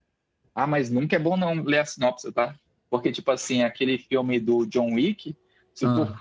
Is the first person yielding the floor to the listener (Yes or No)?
No